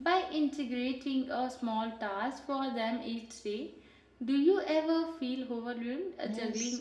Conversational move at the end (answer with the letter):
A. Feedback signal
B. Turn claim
B